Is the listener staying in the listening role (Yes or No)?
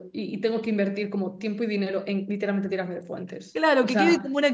No